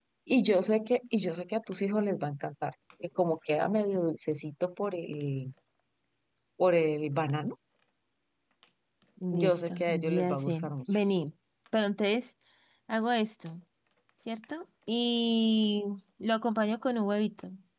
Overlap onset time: 9.3 s

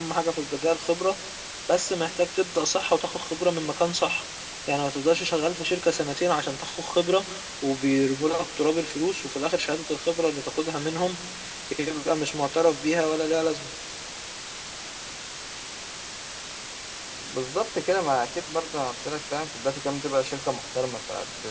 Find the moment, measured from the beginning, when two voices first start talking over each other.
none

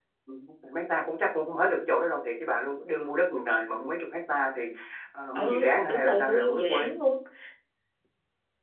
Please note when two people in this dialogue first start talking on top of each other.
5.3 s

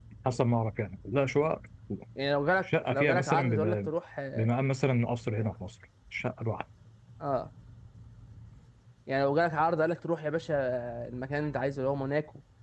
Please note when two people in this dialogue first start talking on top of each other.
2.6 s

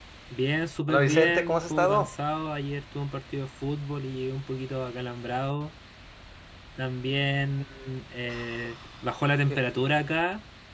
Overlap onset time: 0.9 s

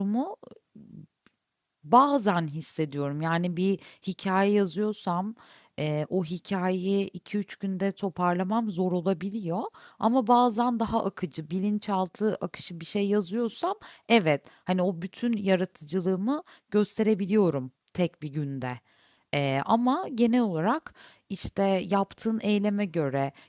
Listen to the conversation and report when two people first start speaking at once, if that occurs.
none

